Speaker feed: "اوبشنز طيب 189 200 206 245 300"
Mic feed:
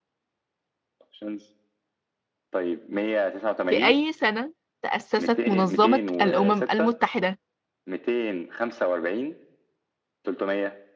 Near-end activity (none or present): present